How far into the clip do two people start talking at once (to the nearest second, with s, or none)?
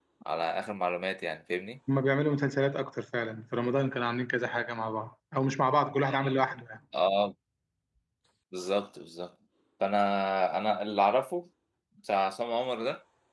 none